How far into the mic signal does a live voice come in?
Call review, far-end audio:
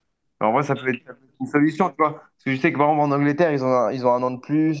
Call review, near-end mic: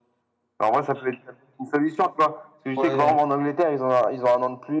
3 s

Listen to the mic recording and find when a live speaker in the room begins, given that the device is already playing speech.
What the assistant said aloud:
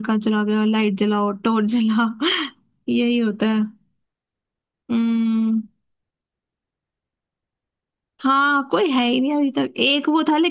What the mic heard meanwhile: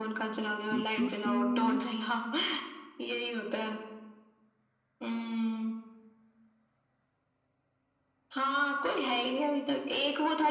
1 s

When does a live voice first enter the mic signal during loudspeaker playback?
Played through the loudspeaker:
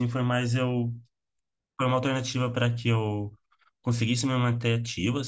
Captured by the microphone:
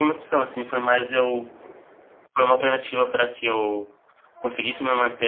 none

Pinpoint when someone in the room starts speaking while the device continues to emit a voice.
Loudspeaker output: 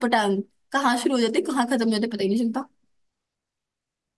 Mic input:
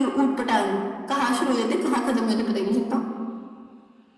none

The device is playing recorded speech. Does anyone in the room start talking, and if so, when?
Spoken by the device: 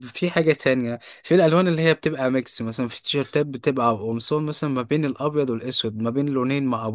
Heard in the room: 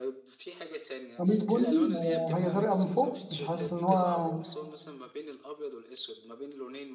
1 s

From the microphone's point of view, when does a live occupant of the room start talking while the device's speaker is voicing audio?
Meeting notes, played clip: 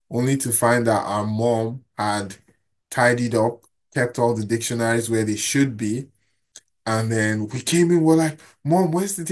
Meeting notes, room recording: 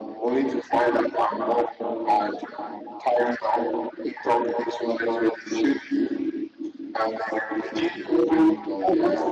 8 s

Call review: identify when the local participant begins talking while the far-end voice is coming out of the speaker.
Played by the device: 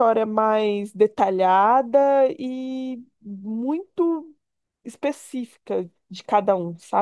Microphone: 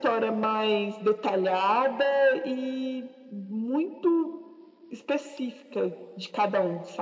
none

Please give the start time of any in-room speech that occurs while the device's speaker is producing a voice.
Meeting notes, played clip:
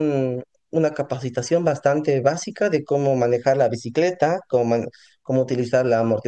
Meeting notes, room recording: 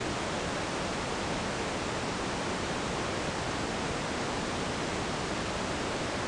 none

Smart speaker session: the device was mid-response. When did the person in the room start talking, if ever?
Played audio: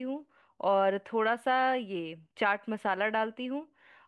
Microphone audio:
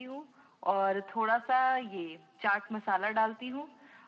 none

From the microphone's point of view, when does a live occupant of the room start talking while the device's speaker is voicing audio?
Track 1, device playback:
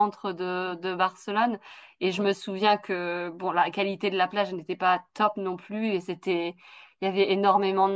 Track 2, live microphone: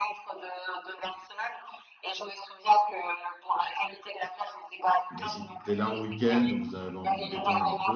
5 s

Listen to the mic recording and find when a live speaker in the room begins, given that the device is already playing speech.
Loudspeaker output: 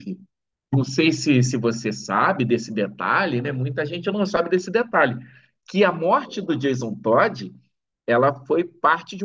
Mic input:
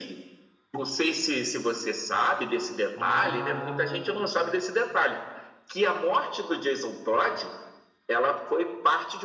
3 s

